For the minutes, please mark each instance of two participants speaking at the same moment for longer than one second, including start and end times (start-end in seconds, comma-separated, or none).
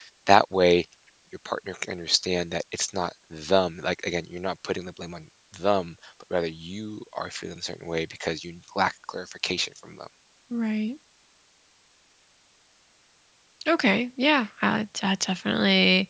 none